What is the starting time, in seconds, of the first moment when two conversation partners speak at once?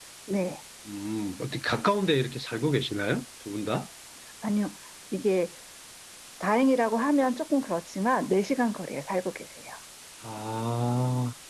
none

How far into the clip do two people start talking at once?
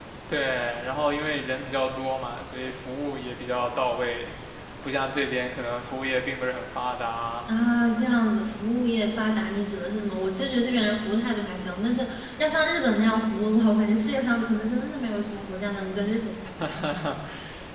none

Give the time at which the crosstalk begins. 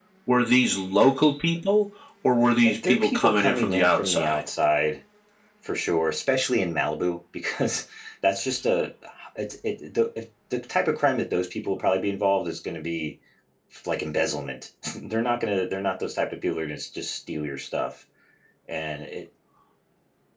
2.6 s

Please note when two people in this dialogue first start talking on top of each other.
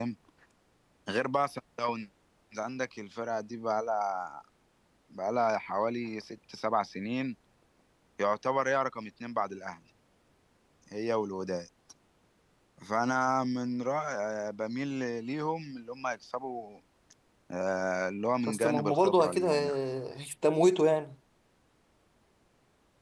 18.5 s

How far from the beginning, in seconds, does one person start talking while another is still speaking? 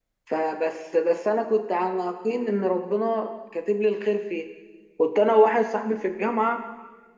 none

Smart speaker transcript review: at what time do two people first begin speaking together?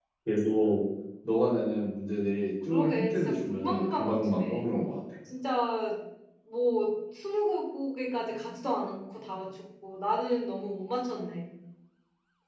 2.7 s

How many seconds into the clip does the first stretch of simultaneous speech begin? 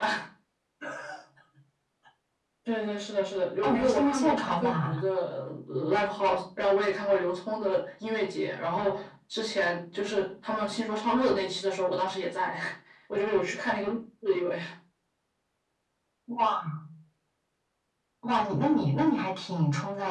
3.6 s

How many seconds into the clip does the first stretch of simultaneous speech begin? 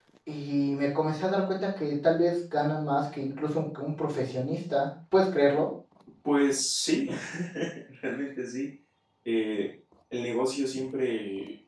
none

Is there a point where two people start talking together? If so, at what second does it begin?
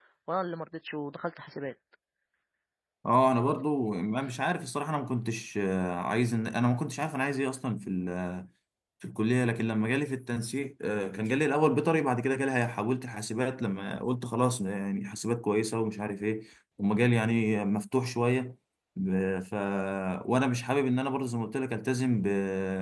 none

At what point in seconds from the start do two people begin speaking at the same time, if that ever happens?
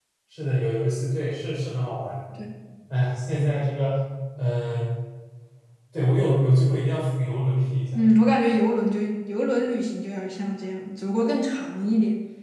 none

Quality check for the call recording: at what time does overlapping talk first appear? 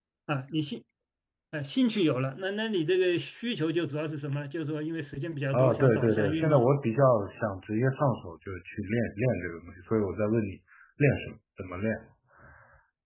5.5 s

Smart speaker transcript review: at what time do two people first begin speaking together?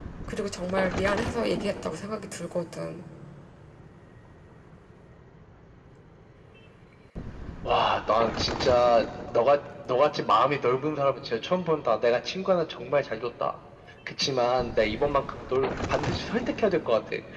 none

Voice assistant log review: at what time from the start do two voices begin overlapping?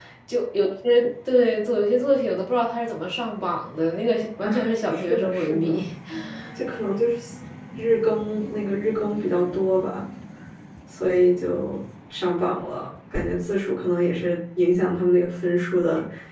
4.4 s

